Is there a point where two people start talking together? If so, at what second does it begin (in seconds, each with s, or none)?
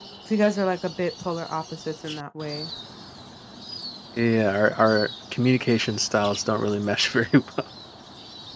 none